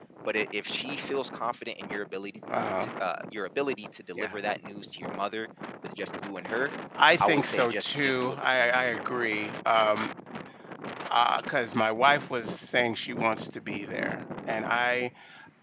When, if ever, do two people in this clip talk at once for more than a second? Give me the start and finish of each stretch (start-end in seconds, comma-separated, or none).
7.2-9.2